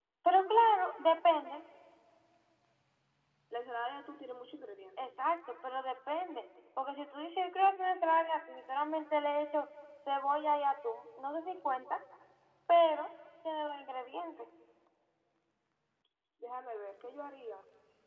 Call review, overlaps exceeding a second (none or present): none